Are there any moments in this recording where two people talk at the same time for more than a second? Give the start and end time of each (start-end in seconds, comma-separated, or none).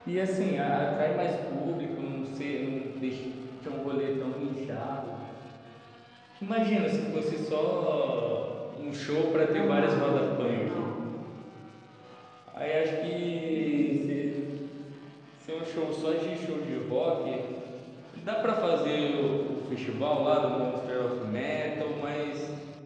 9.5-10.9